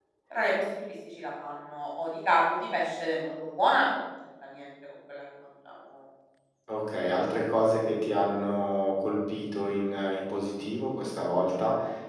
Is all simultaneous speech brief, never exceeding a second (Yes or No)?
Yes